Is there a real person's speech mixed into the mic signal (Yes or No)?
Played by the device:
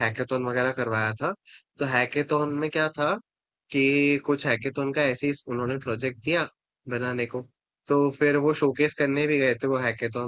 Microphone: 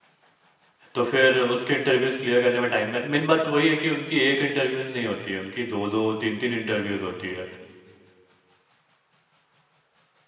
Yes